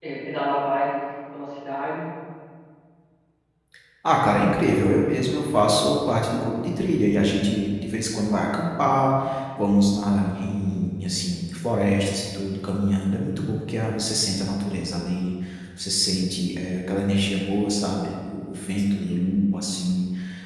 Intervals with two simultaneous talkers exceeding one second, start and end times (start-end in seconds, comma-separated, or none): none